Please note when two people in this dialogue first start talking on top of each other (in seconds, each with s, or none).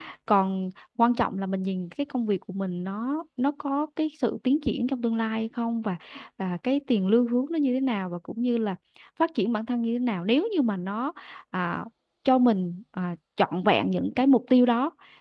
none